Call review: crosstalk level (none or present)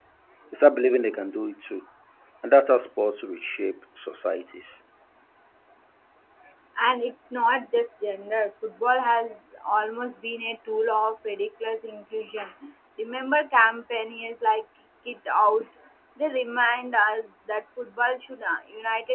none